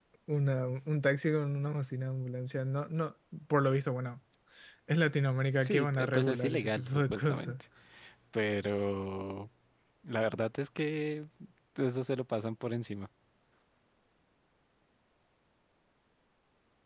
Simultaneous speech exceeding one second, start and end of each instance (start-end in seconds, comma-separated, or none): 5.6-7.6